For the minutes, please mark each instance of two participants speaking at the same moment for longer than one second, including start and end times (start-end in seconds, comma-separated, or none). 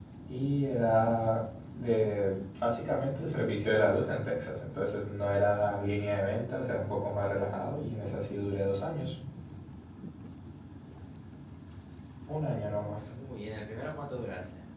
none